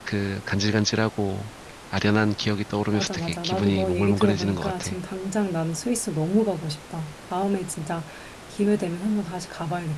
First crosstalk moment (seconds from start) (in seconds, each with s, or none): 2.9 s